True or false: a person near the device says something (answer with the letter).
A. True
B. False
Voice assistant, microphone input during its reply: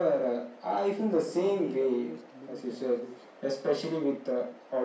A